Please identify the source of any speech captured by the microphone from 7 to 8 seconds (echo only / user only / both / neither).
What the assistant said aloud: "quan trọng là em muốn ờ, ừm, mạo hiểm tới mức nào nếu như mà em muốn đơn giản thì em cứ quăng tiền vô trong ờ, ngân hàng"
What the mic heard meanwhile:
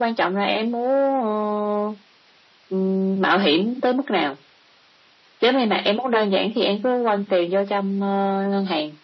echo only